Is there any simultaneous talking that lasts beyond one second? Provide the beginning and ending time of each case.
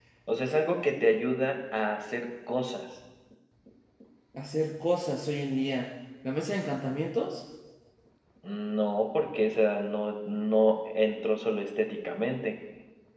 none

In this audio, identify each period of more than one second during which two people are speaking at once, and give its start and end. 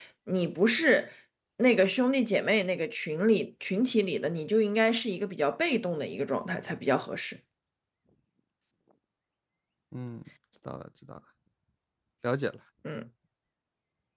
none

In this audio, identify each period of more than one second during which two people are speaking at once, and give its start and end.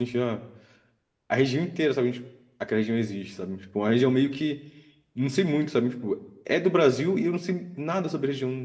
none

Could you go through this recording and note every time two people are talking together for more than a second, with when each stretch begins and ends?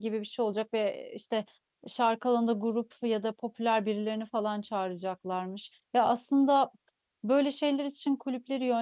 none

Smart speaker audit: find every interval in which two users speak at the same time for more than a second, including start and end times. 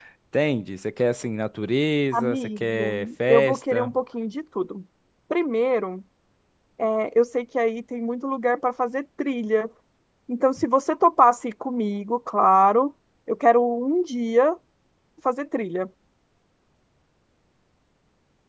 2.1-3.9

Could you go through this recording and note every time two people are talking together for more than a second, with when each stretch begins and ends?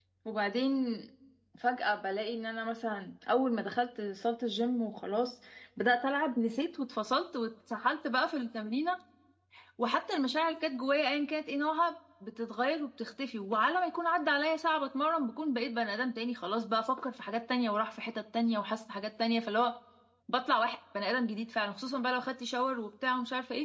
none

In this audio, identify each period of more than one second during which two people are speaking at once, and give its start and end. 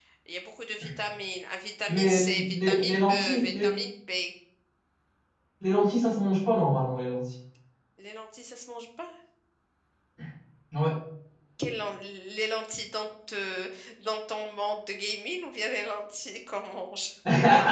1.9-3.8

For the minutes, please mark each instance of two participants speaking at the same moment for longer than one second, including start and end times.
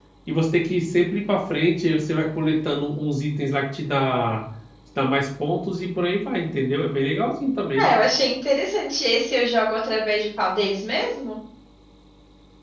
none

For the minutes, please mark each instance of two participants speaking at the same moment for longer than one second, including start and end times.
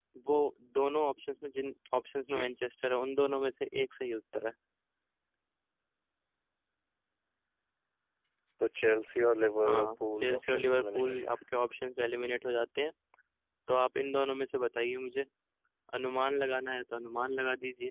9.6-11.3

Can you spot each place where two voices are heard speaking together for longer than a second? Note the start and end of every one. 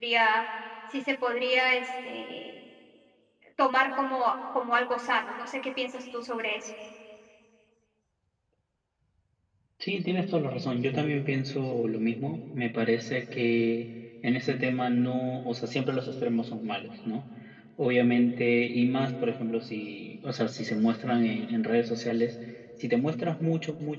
none

